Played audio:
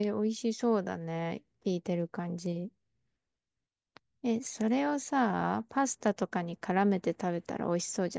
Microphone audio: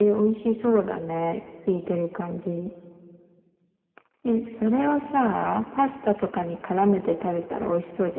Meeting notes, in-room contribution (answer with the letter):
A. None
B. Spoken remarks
A